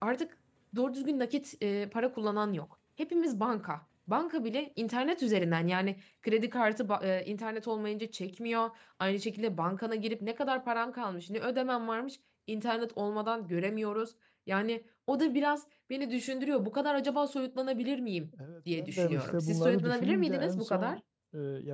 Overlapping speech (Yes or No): Yes